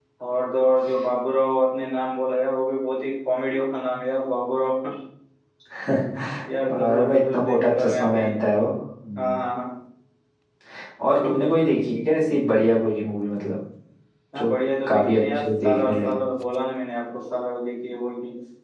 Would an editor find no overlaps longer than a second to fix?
No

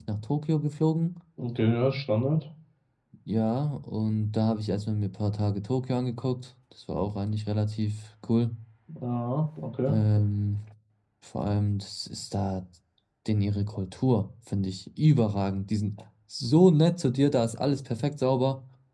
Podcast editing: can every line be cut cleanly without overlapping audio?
Yes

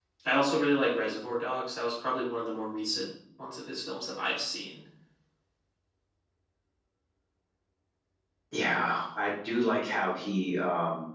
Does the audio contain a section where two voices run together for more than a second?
No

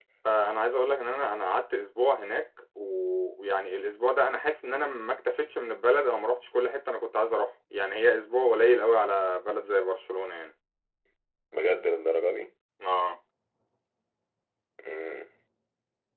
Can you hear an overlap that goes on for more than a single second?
No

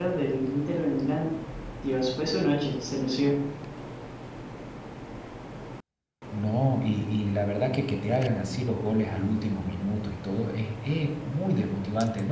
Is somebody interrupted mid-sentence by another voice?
No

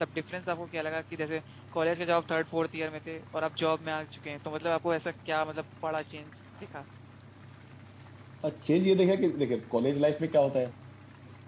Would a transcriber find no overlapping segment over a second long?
Yes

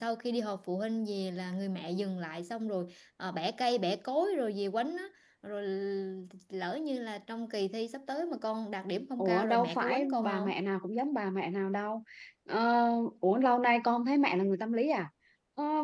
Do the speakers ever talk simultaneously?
Yes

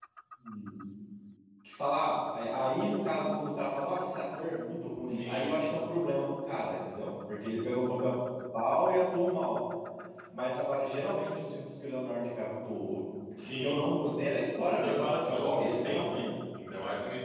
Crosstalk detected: Yes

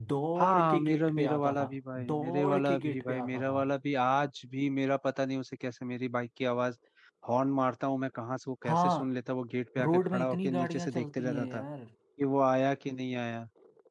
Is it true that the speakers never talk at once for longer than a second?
No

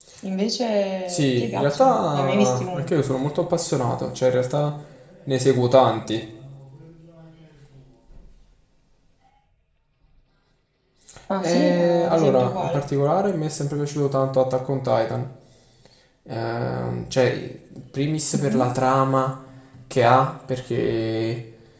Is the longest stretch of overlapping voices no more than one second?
No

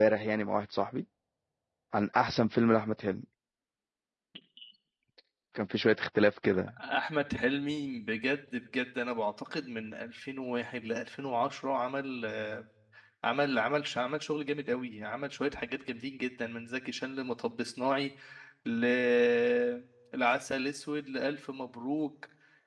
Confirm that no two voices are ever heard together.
Yes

